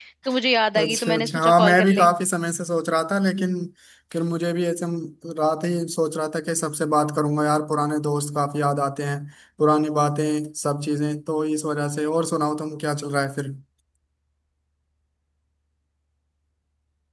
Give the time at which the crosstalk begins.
1 s

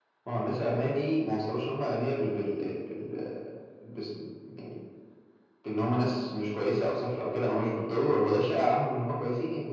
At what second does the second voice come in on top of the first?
none

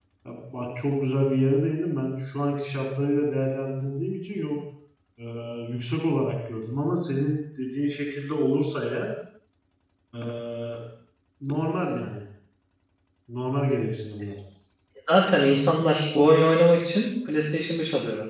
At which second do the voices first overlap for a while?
none

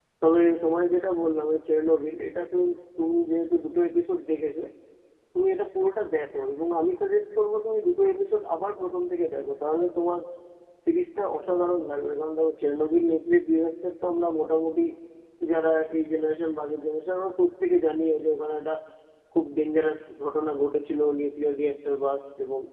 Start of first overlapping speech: none

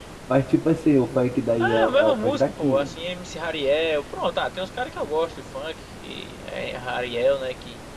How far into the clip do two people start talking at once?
2 s

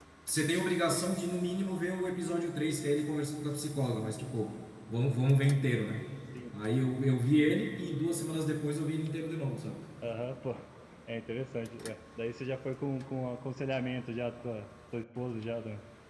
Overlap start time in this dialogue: none

